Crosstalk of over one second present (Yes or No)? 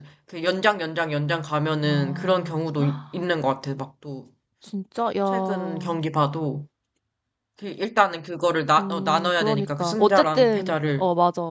Yes